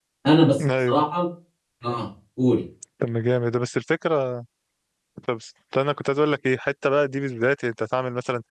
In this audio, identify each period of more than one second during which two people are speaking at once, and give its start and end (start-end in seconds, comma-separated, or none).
none